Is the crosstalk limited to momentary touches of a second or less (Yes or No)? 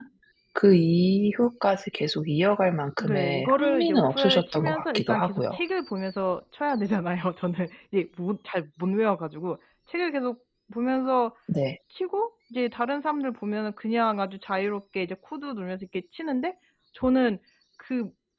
No